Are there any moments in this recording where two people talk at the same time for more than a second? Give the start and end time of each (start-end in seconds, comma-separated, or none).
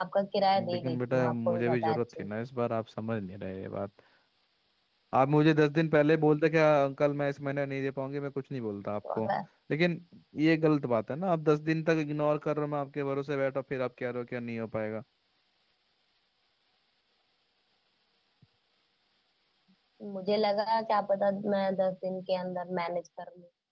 0.7-2.3